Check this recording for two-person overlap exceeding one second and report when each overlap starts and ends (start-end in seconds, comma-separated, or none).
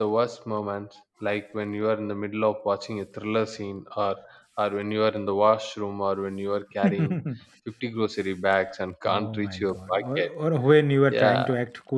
9.1-10.3